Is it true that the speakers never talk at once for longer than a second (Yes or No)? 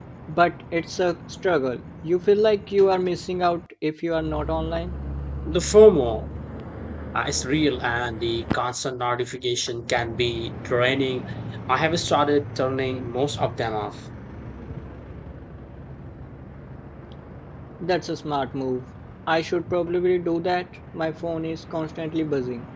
Yes